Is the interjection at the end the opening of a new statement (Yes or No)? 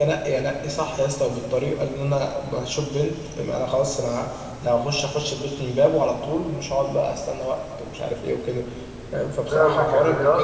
Yes